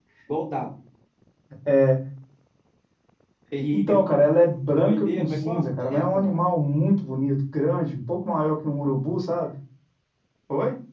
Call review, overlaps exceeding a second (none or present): present